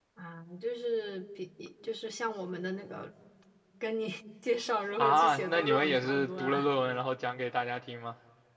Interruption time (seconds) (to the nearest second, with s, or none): 5 s